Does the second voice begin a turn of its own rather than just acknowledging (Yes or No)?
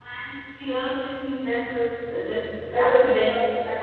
No